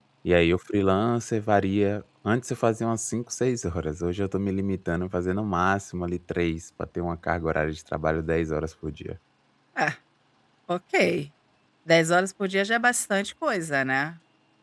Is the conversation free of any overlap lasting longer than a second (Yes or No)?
Yes